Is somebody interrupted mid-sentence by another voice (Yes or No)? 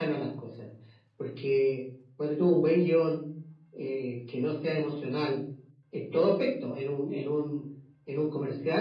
No